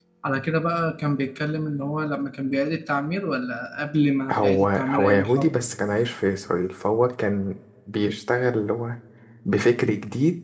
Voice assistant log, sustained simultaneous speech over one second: present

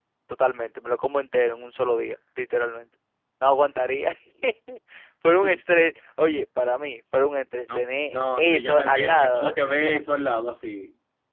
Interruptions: present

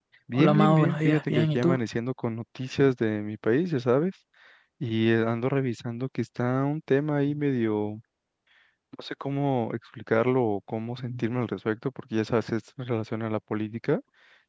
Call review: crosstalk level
present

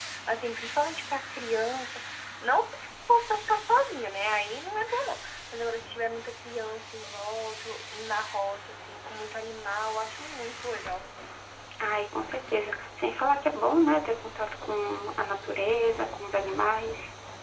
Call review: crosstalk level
none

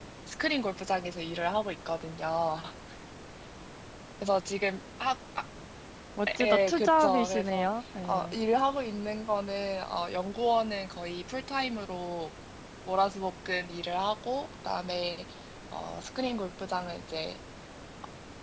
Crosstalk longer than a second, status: present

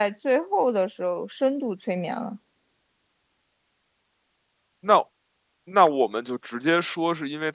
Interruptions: none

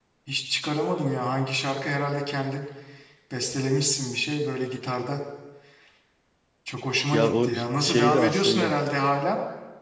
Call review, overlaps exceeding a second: present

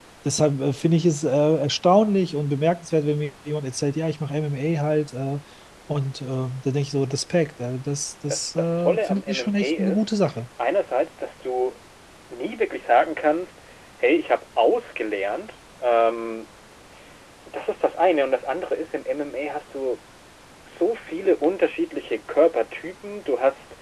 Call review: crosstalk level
present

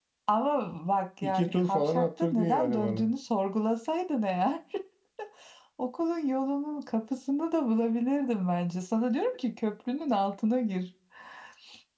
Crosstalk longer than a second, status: present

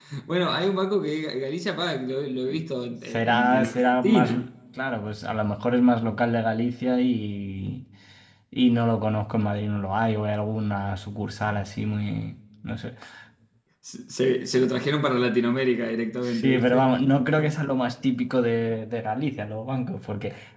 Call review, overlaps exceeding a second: present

